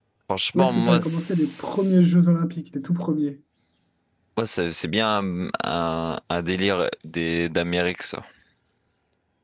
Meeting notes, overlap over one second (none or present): present